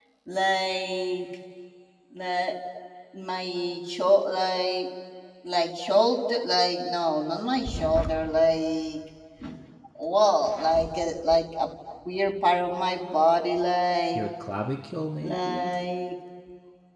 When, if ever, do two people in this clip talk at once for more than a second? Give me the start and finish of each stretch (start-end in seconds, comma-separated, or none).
none